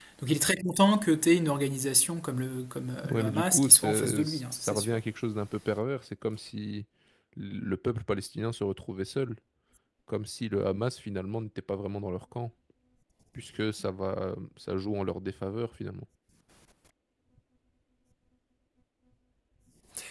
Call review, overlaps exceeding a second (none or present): present